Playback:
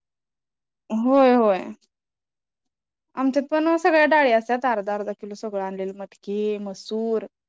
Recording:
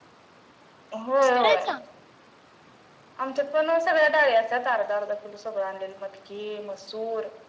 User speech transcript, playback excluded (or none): कुसकरायचं